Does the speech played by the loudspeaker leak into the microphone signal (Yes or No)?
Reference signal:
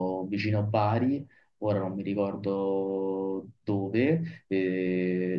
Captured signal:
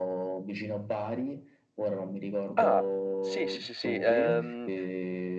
Yes